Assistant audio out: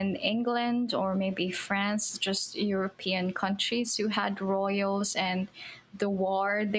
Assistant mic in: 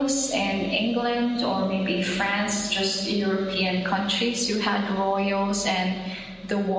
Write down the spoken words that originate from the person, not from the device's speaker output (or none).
none